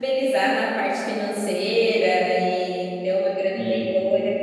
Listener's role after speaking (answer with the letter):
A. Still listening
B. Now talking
A